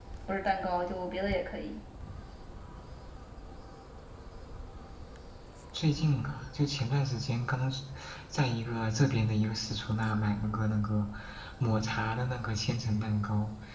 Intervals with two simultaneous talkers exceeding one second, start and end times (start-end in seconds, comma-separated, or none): none